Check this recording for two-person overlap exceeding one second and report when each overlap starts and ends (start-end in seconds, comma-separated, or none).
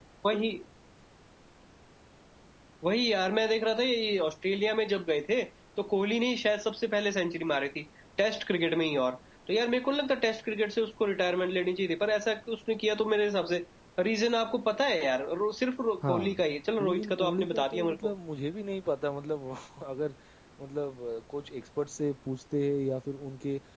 16.8-18.1